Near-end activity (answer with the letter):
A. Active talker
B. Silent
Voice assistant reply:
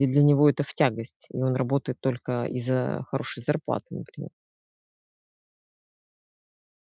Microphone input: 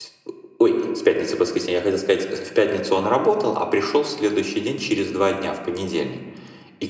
A